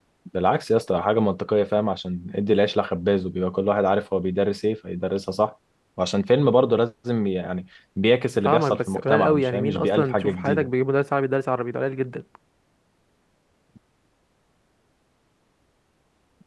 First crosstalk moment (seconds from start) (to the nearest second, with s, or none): 8 s